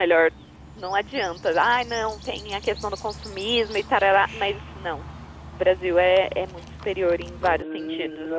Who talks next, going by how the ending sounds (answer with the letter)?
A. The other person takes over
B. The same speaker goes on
A